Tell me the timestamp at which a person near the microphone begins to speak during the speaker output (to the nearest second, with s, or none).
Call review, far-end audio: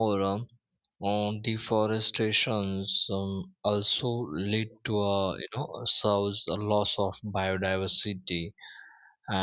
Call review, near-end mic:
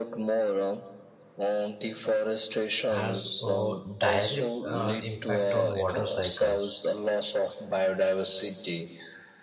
3 s